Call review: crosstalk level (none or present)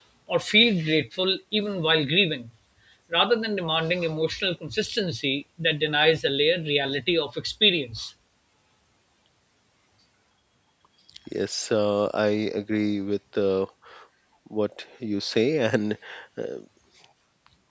none